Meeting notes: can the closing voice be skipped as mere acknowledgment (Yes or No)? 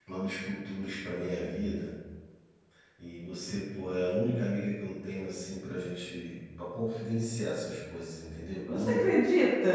No